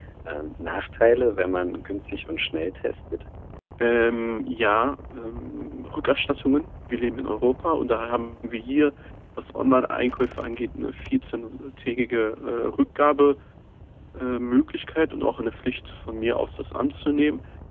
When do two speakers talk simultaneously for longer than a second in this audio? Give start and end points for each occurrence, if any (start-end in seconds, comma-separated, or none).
none